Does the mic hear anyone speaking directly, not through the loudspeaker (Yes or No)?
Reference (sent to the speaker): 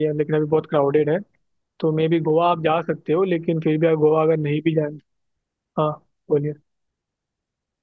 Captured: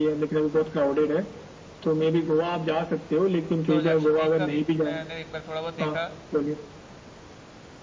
Yes